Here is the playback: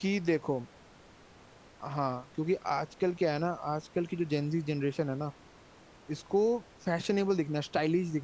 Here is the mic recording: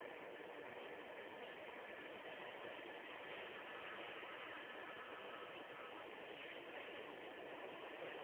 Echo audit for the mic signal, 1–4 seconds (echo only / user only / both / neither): neither